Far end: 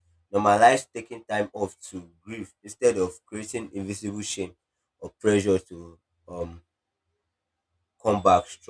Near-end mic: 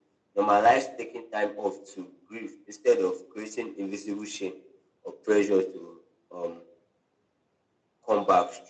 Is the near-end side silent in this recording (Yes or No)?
Yes